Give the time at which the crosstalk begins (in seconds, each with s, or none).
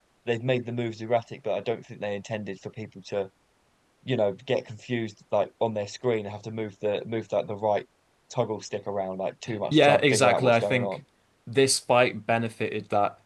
9.5 s